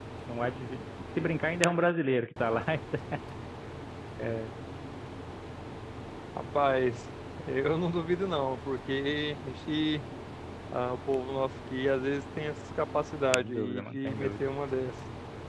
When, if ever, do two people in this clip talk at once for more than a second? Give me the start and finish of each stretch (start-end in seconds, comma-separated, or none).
13.3-14.5